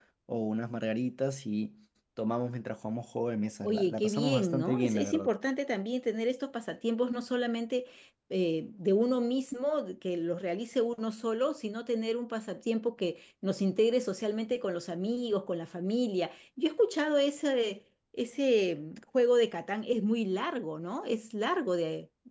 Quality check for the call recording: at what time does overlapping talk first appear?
3.6 s

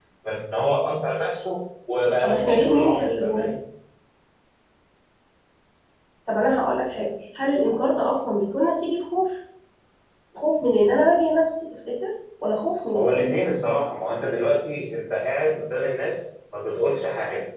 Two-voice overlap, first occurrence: 2.2 s

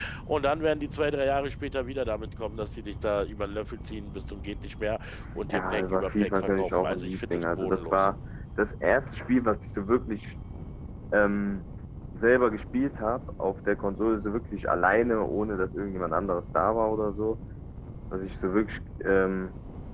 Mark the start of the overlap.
5.5 s

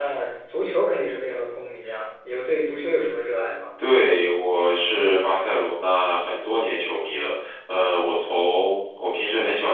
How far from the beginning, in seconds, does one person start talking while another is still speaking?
none

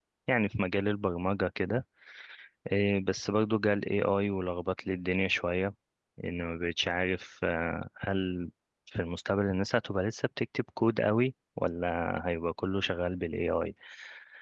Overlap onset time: none

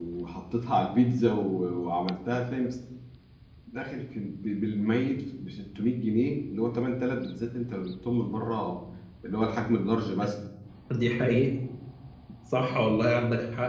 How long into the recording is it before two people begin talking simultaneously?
none

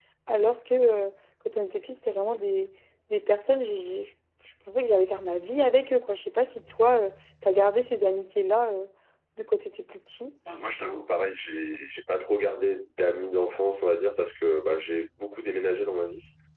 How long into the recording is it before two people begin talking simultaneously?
none

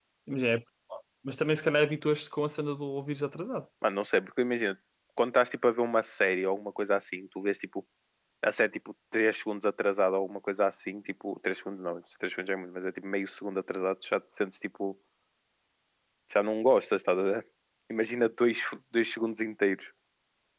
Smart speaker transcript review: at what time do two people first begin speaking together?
none

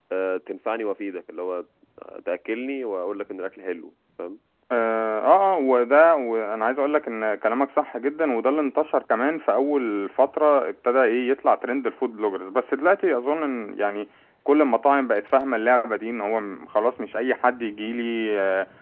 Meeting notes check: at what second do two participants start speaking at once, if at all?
none

